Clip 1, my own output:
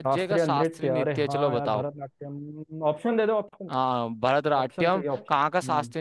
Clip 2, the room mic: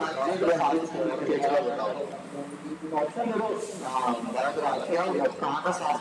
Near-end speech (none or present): none